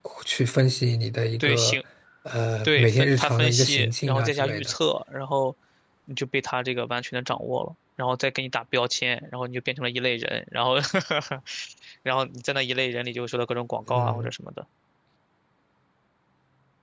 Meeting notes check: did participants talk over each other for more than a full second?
Yes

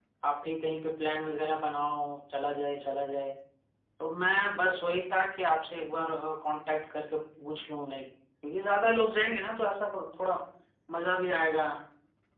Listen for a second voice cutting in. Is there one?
No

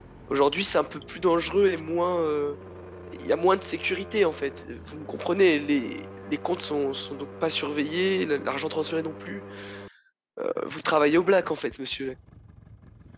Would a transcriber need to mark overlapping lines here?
No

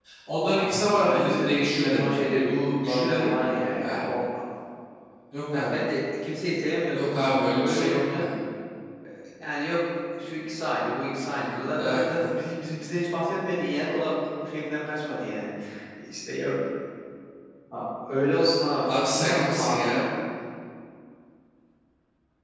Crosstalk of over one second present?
Yes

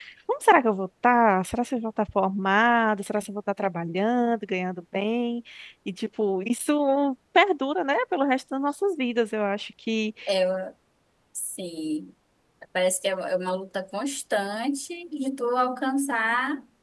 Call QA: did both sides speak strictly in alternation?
Yes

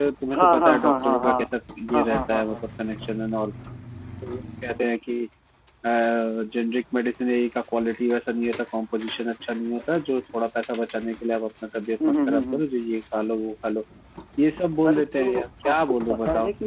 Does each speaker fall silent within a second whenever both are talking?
No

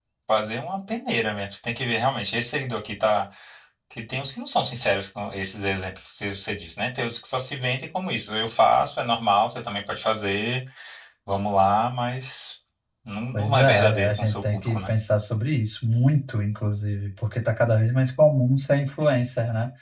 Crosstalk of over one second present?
Yes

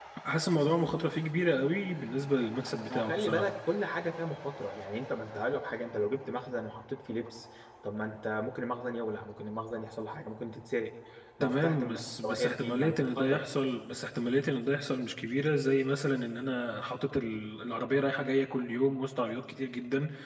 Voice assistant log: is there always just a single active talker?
No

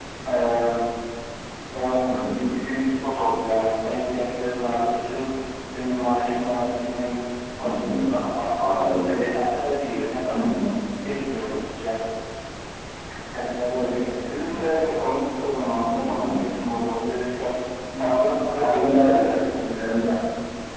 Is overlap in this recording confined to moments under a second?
No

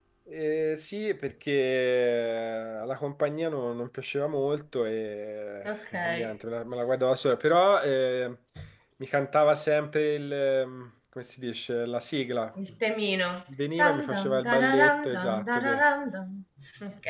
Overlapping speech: Yes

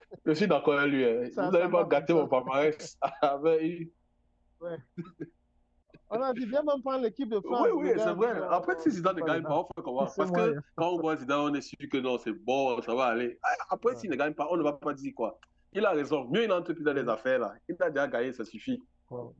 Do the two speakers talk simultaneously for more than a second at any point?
Yes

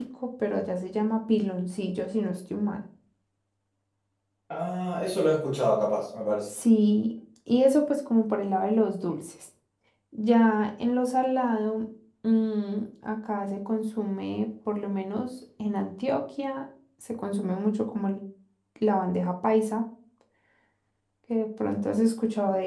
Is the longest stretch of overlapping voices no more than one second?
Yes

